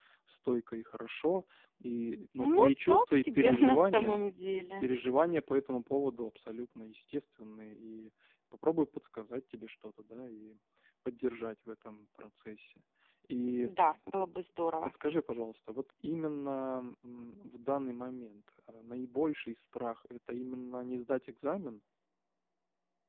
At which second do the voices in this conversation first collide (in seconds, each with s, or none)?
2.4 s